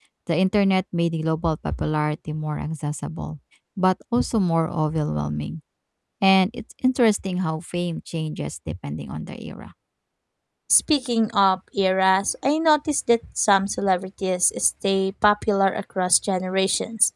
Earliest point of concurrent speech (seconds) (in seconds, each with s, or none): none